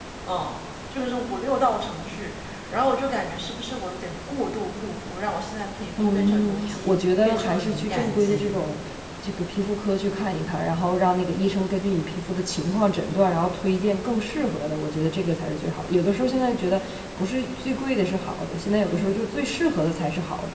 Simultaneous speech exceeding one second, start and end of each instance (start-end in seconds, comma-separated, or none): 6.0-8.6